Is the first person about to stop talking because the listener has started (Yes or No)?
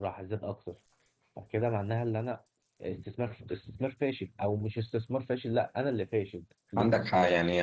Yes